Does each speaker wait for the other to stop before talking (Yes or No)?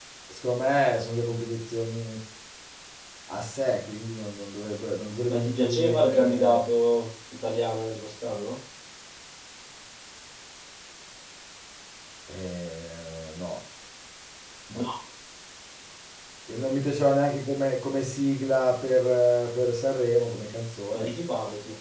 No